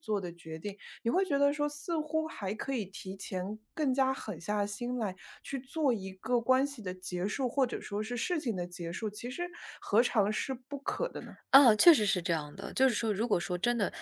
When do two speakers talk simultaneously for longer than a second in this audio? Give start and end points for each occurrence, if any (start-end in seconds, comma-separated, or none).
none